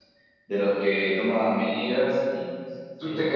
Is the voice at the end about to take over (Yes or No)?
No